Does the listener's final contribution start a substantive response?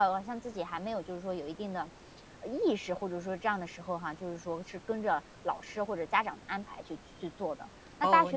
Yes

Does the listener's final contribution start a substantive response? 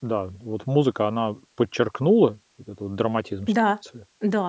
Yes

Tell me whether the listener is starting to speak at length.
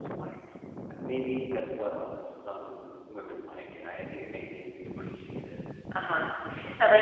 Yes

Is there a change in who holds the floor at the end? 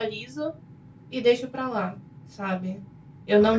No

